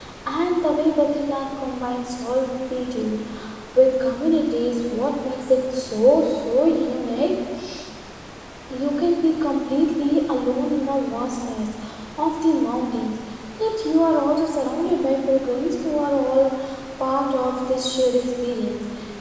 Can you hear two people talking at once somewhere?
No

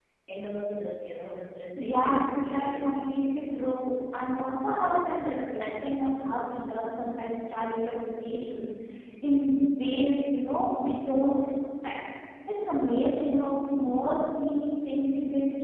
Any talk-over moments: Yes, from 1.8 s

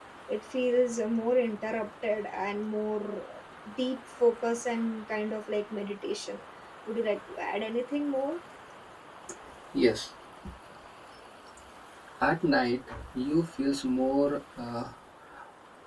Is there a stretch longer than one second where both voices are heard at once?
No

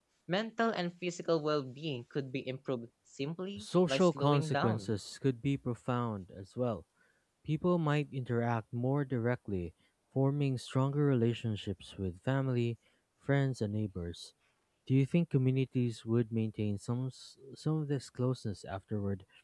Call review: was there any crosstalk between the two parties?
Yes, from 3.6 s

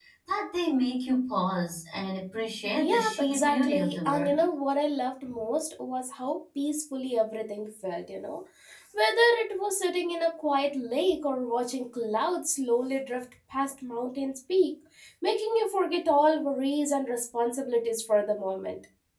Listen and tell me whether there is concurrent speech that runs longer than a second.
Yes, from 2.8 s

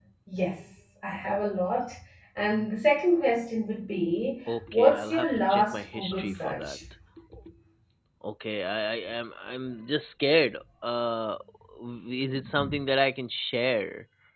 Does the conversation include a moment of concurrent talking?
Yes, from 4.7 s

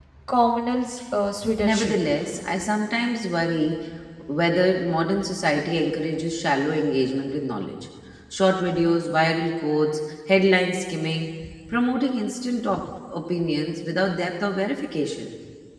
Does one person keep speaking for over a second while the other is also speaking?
No

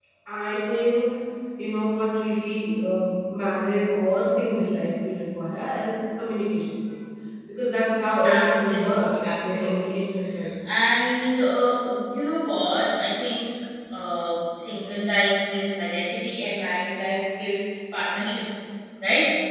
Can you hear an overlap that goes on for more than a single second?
Yes, from 8.2 s

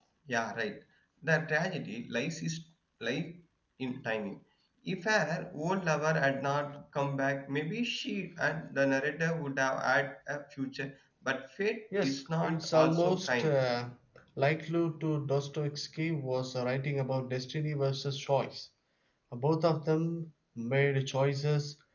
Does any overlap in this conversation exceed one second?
Yes, from 11.9 s

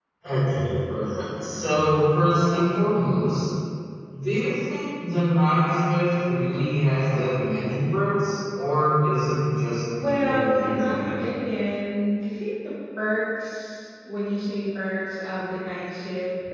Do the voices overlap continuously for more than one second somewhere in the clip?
Yes, from 10.0 s

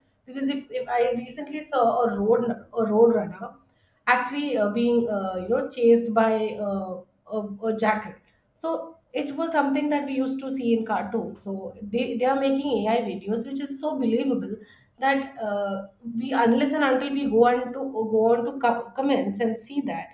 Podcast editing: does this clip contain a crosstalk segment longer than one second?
No

